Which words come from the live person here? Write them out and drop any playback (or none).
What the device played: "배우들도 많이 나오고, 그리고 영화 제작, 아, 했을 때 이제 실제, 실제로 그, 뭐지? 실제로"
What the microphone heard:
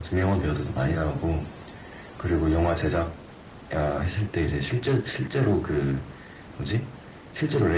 none